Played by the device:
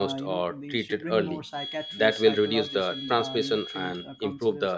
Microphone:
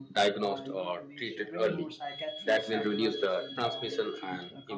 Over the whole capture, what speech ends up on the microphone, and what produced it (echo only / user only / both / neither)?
echo only